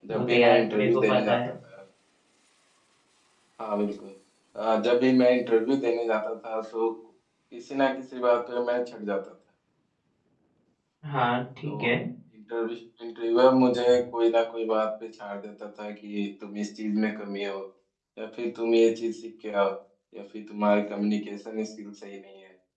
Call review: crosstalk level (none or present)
present